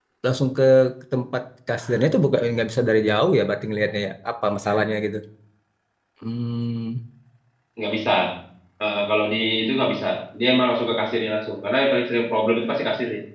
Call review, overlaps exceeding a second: none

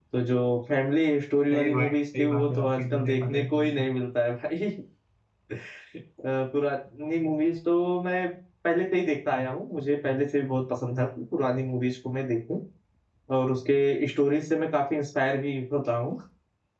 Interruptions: present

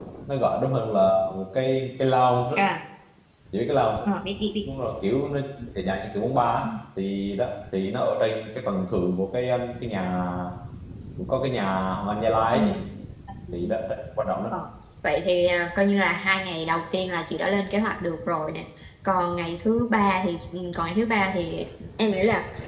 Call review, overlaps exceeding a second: none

